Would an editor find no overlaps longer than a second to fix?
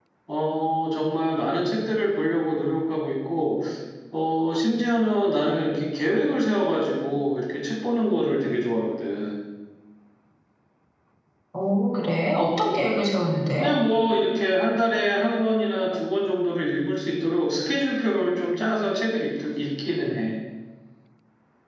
Yes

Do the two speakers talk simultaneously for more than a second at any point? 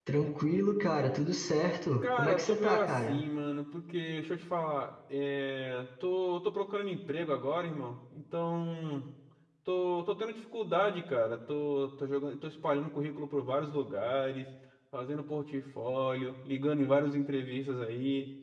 Yes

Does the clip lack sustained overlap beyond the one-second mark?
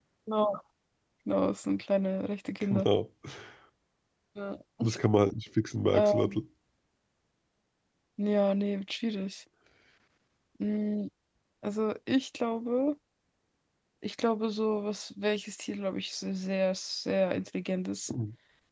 Yes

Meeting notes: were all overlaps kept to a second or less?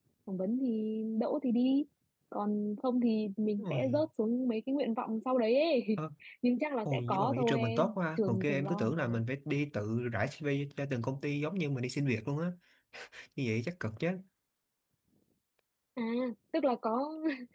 No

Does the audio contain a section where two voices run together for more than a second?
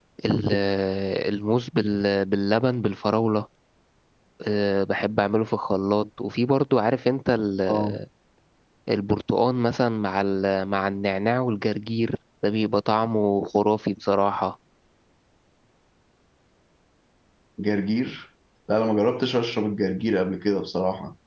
No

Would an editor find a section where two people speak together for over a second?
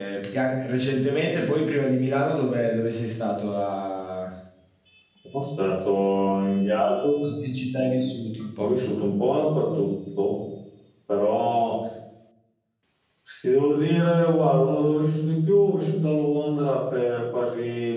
No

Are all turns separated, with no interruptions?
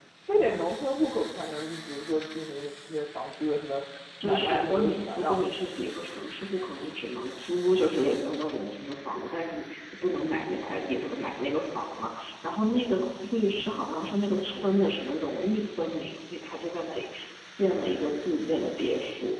No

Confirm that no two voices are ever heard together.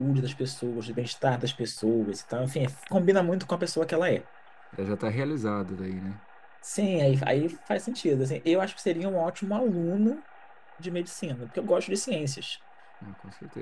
Yes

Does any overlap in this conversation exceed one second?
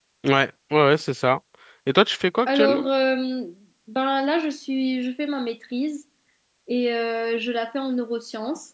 No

